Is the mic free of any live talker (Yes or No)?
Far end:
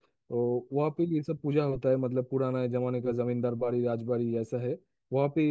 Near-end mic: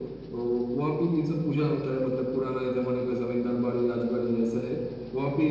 Yes